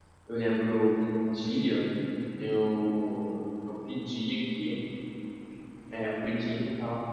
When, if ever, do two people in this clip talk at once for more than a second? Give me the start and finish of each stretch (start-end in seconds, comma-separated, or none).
none